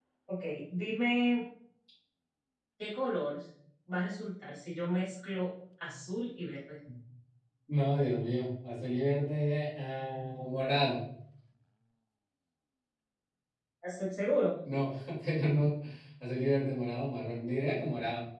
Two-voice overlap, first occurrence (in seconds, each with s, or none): none